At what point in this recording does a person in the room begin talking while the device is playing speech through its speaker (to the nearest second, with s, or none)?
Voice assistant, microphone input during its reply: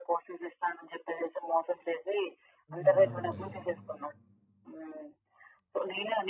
3 s